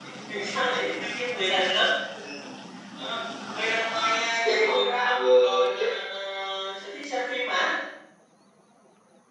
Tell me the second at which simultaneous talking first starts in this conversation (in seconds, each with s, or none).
4.4 s